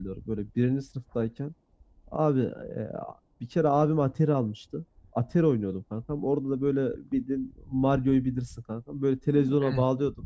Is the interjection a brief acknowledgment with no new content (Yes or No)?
Yes